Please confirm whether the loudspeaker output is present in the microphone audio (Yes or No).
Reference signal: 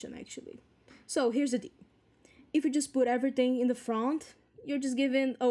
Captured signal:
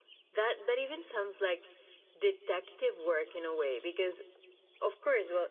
No